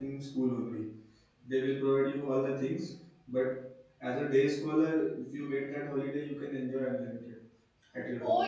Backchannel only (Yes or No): No